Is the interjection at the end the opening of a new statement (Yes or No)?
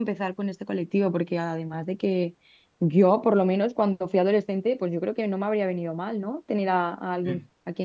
No